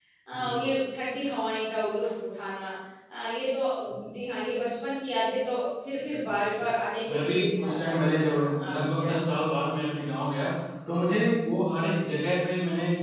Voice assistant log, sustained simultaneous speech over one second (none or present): present